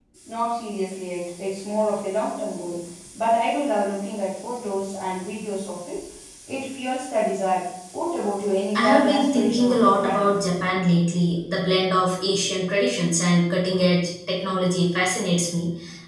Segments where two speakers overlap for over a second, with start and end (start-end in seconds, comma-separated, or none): 8.7-10.3